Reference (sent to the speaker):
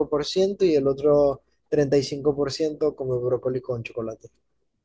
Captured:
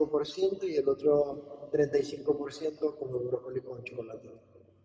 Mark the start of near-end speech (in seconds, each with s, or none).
none